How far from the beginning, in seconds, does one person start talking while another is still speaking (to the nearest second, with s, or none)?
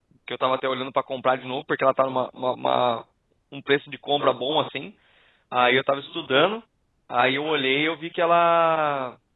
none